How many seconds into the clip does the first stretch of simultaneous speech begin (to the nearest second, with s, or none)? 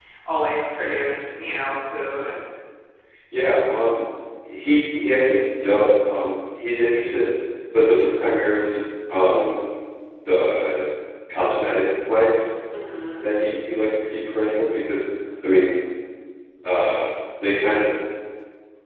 none